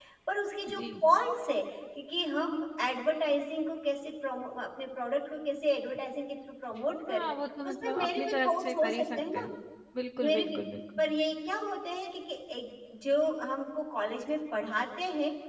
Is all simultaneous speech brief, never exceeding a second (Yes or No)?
No